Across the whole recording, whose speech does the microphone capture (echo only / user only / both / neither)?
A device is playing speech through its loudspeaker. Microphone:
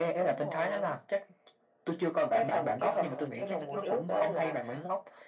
both